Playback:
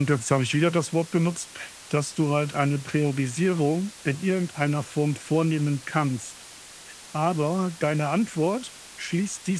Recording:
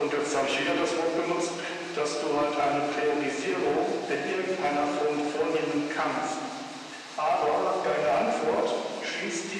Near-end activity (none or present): none